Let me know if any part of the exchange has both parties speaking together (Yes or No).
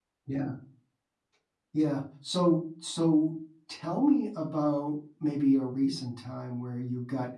No